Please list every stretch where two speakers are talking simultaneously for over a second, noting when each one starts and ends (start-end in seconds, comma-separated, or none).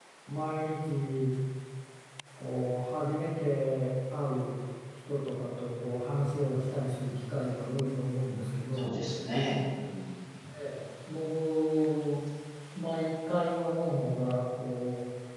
none